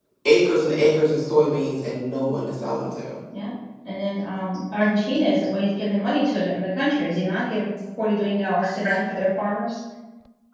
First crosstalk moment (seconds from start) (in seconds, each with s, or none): none